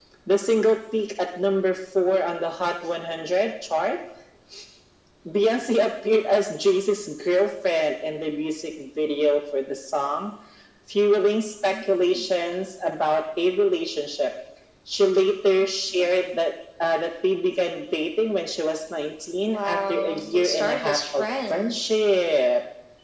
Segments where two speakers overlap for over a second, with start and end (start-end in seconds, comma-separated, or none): 19.4-22.0